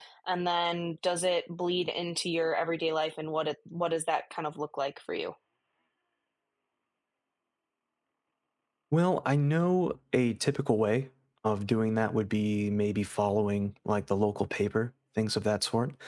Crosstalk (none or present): none